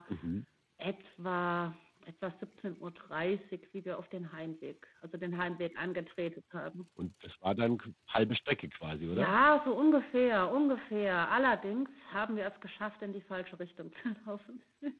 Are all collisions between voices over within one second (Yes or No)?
Yes